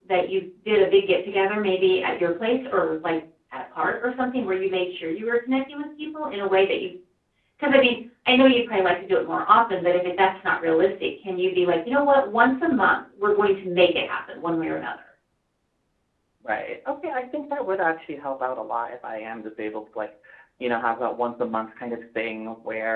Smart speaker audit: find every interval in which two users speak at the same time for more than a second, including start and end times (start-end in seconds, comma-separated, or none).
none